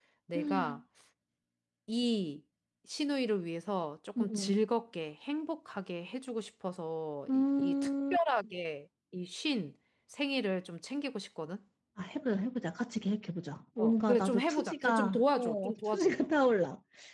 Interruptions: present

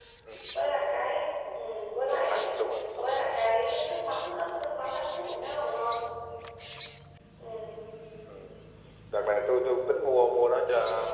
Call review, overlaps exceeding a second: none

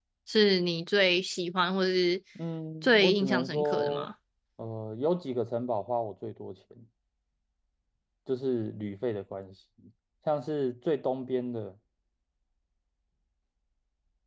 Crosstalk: present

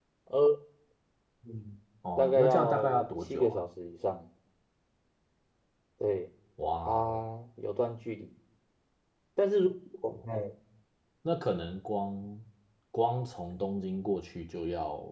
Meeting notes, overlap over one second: present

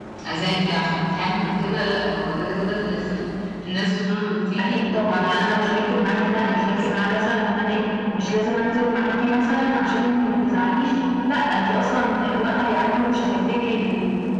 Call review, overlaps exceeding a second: present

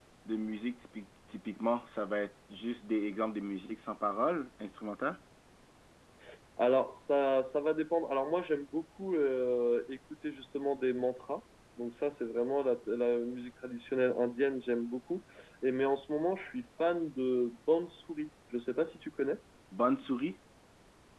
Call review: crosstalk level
none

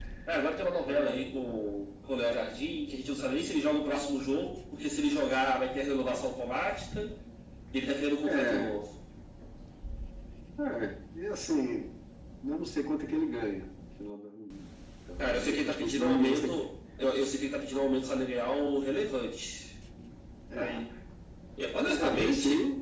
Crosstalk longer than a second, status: present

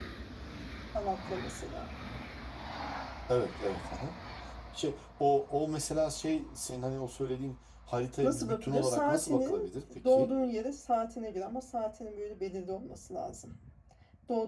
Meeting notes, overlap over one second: present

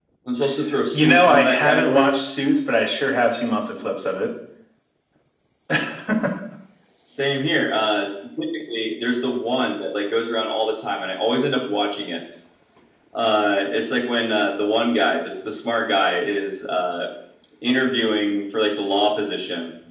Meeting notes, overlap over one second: present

